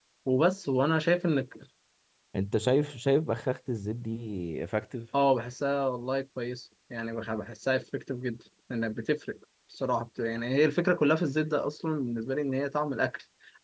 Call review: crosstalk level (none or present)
none